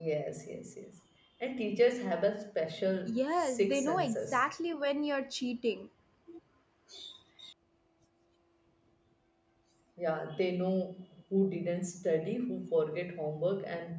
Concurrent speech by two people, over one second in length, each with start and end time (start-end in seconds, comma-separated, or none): 3.1-4.4